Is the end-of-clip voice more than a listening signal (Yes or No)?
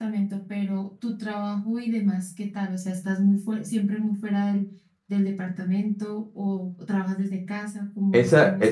Yes